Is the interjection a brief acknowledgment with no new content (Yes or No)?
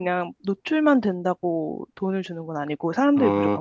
No